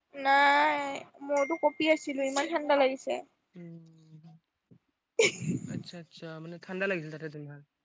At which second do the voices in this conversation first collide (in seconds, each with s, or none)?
none